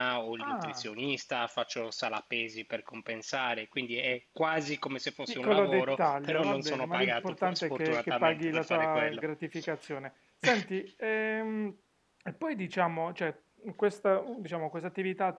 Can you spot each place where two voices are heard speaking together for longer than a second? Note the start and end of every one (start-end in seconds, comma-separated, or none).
5.3-9.2